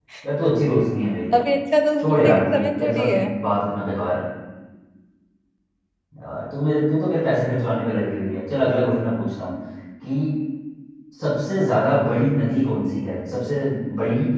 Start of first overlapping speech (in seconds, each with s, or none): 2.0 s